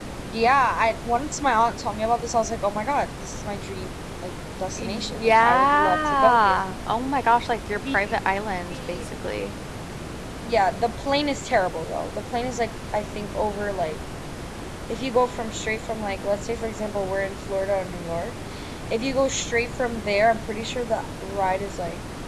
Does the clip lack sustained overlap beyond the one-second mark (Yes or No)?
No